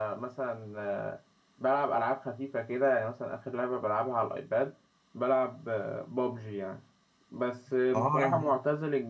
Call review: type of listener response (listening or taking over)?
listening